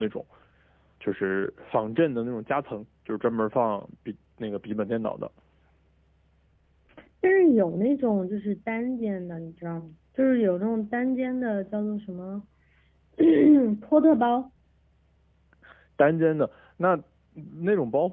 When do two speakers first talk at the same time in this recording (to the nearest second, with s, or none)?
none